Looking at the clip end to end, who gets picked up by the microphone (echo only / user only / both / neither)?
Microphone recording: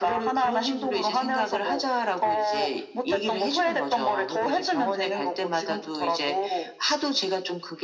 echo only